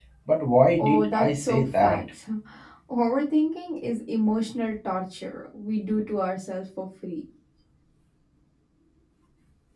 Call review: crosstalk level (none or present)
present